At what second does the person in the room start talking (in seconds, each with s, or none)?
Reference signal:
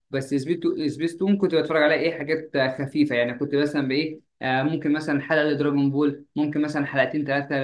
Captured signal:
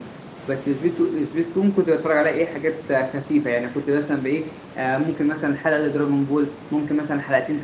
none